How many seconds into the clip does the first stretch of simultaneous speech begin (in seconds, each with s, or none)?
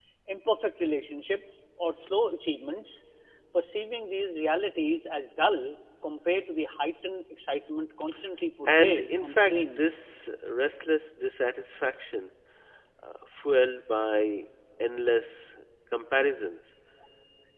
8.7 s